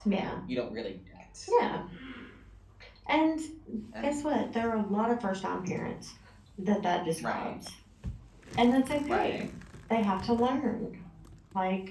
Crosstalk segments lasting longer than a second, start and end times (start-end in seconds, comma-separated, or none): none